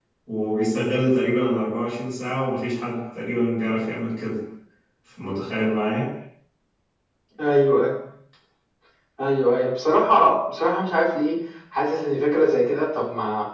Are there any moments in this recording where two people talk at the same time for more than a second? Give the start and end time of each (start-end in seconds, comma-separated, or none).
none